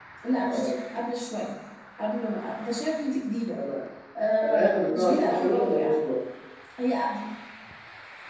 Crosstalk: present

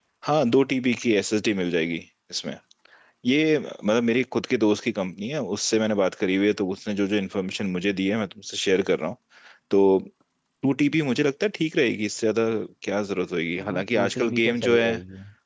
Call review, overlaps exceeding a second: present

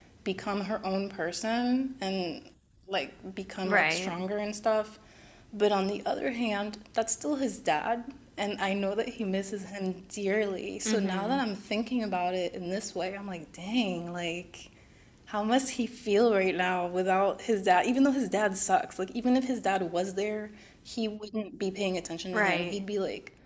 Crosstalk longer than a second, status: none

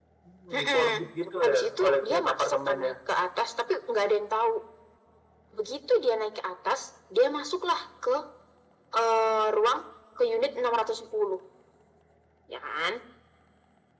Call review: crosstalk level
present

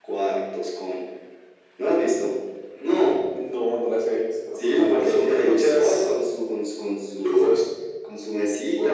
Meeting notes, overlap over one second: present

